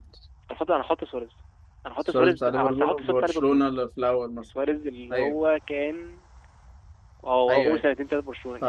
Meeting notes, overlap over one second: present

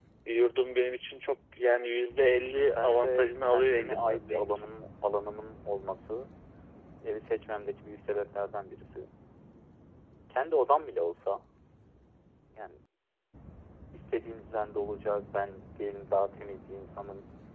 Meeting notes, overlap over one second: present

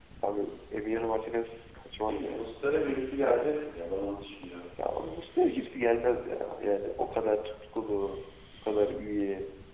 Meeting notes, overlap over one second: none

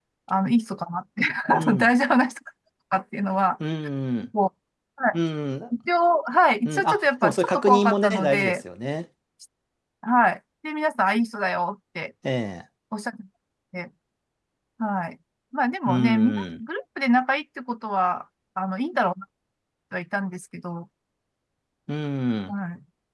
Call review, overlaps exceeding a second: present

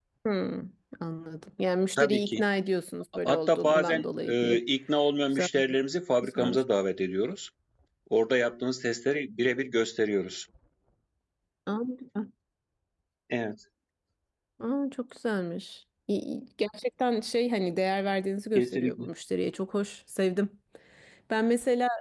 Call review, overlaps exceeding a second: present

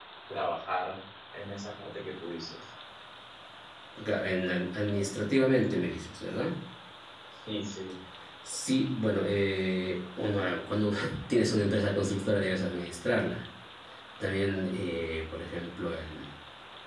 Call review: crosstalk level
none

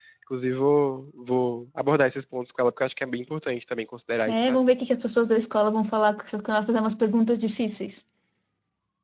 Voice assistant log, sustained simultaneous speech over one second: none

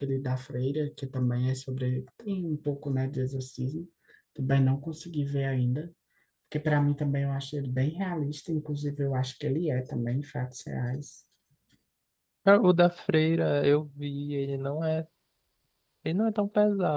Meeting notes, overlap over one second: none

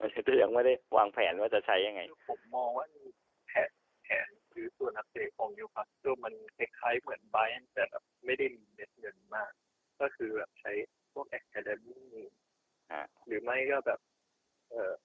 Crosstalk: none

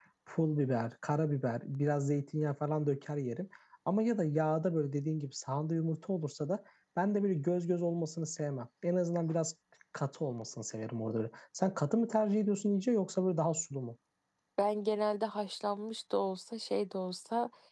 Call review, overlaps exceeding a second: none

